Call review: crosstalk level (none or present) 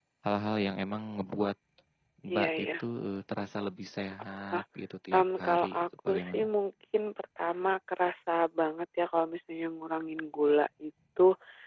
present